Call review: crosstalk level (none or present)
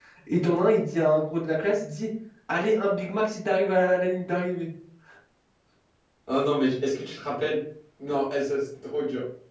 none